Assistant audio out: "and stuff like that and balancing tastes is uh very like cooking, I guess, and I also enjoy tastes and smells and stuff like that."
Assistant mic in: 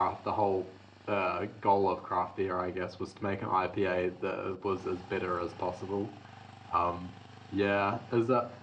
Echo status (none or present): none